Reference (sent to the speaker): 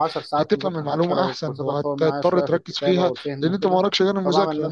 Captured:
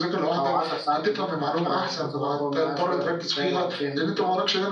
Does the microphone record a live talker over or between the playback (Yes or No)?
No